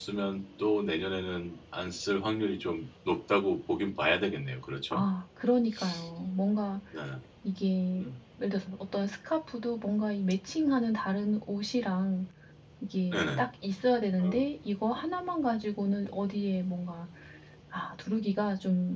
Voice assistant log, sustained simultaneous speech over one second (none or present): none